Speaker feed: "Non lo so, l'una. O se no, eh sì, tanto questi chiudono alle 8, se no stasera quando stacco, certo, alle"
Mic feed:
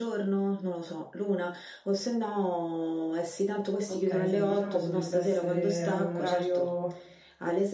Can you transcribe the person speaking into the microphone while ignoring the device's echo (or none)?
Ok, sì, diciamo potrebbe essere un orario